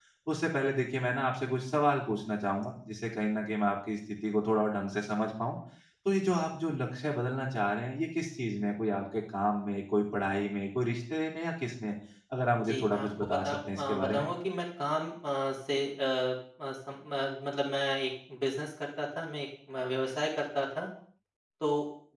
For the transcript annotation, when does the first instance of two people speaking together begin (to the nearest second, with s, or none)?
13 s